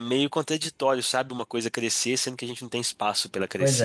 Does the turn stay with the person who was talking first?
No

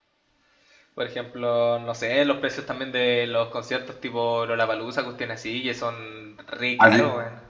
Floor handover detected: Yes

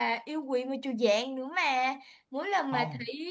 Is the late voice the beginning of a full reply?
No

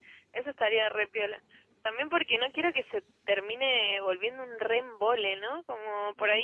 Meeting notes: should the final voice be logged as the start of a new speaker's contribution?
No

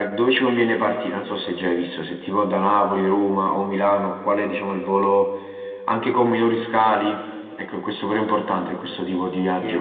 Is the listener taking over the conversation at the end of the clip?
Yes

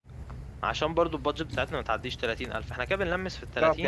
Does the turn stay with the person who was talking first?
No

